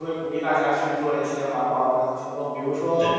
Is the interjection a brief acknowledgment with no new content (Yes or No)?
Yes